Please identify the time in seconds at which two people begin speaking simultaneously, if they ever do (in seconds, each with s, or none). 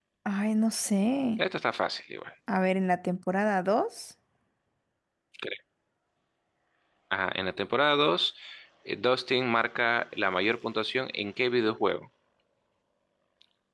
none